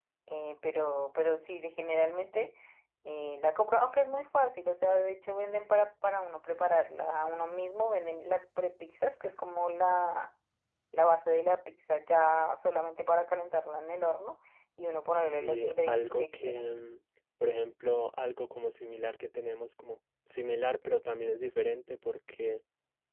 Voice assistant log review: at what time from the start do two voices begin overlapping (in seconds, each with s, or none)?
15.2 s